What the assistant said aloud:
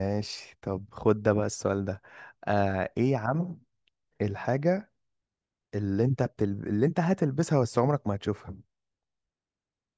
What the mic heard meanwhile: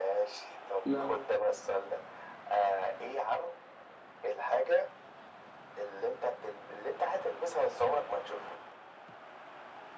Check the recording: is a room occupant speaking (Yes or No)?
Yes